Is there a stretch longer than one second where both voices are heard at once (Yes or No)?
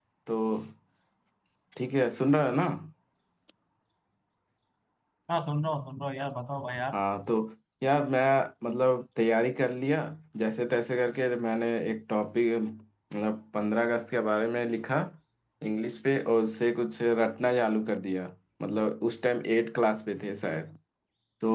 No